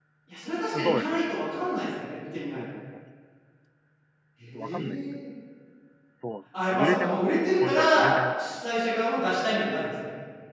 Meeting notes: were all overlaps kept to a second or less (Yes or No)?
No